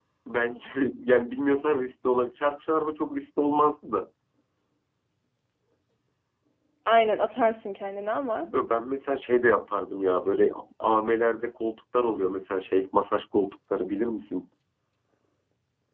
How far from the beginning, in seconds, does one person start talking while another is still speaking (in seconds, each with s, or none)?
none